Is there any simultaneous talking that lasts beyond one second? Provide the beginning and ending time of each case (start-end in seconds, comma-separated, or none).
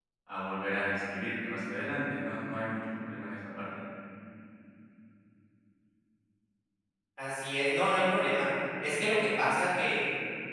none